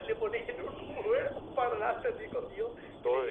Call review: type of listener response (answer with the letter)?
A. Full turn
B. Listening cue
A